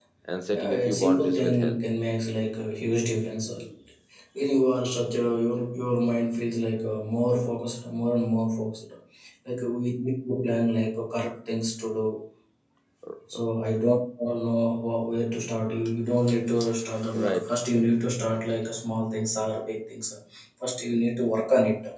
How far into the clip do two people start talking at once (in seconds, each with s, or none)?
0.5 s